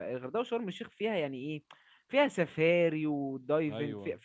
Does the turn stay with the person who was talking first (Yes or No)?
Yes